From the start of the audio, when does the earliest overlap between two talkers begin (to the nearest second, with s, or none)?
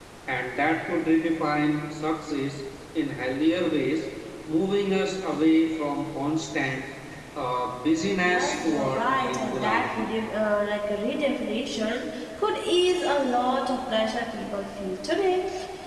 8 s